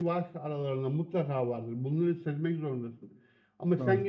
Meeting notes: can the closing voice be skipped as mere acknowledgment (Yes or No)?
Yes